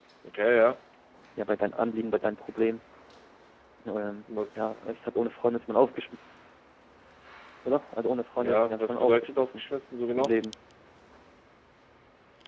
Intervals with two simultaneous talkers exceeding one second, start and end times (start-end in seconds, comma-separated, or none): 8.4-9.6